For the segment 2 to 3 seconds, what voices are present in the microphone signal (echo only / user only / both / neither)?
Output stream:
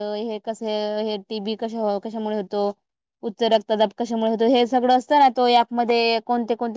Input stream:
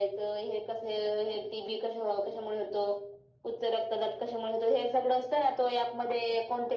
echo only